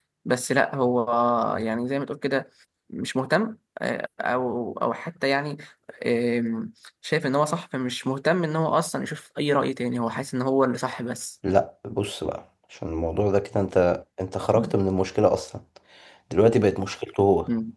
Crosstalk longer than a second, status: none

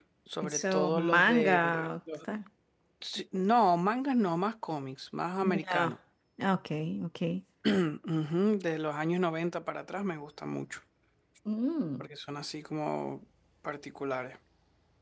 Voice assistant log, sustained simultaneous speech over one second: present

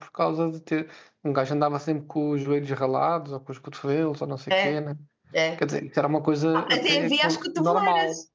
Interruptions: present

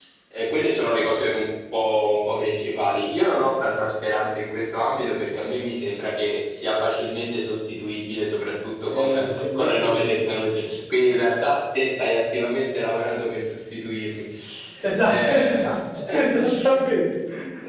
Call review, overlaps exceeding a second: present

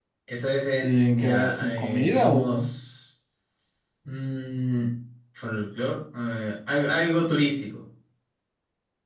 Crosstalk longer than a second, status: present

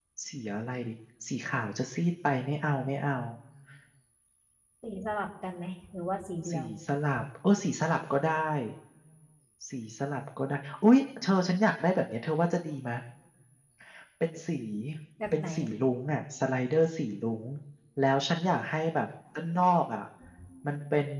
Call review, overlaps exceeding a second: none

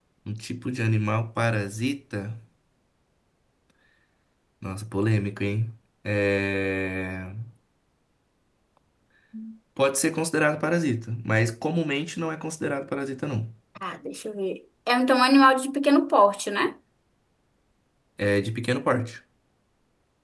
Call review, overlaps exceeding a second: none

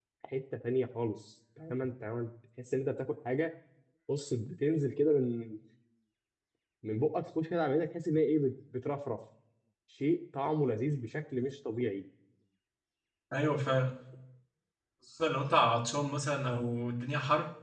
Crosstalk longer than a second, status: none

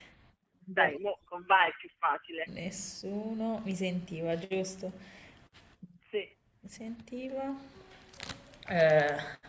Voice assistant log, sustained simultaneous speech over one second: none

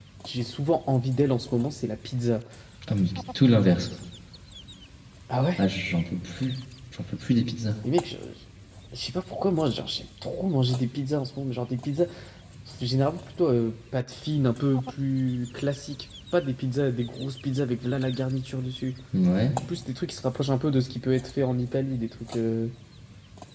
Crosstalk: none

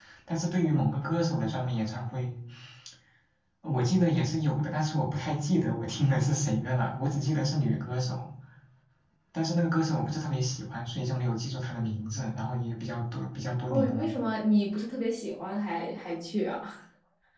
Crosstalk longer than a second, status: none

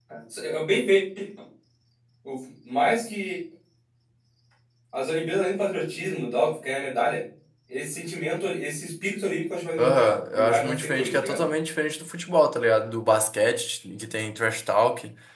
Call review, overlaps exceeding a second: present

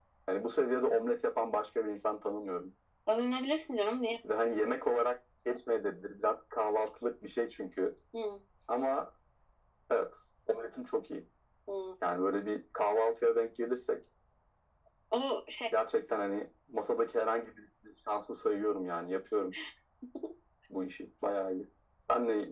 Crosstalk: none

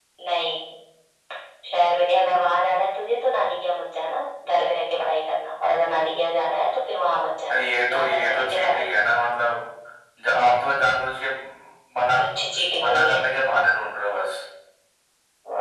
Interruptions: present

